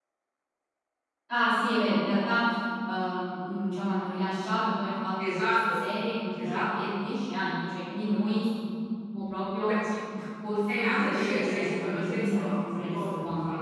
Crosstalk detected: Yes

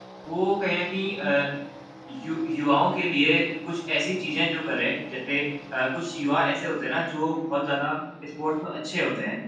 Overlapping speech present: No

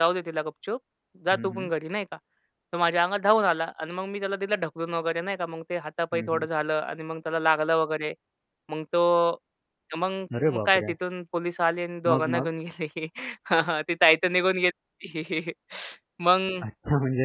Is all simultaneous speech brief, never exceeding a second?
Yes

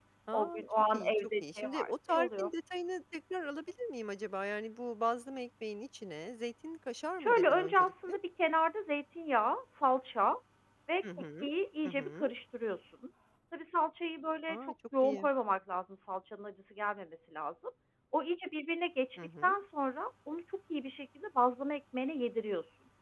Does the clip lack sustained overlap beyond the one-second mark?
No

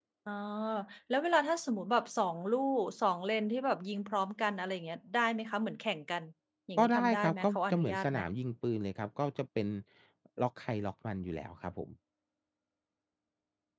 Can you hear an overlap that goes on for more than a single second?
Yes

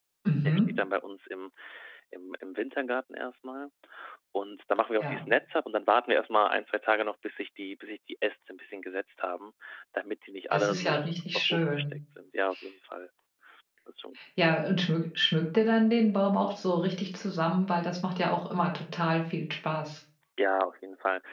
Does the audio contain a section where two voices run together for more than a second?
Yes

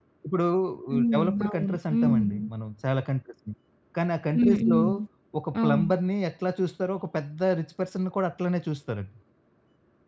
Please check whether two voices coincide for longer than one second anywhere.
Yes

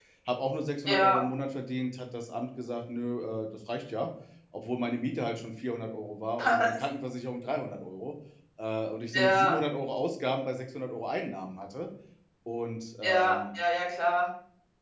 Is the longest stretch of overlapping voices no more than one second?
Yes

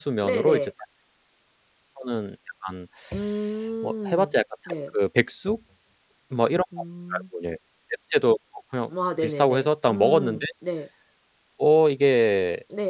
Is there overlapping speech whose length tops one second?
Yes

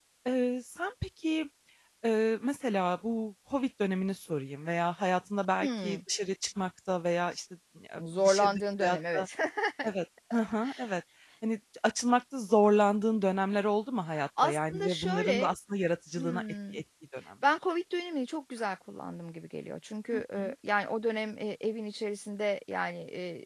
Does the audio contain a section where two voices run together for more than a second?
Yes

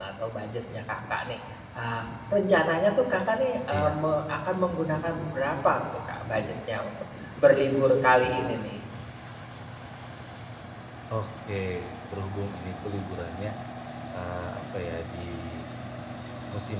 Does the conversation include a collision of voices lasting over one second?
No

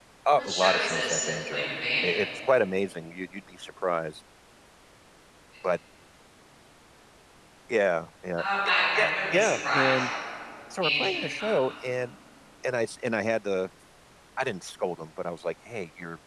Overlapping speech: Yes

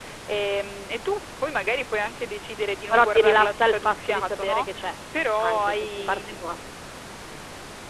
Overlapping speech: Yes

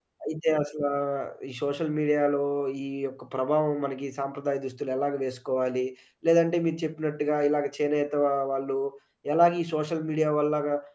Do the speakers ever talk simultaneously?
No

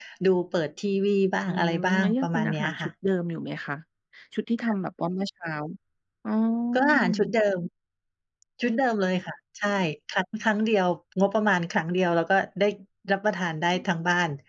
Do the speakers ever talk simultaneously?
Yes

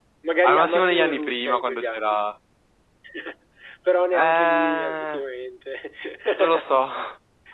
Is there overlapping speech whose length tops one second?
Yes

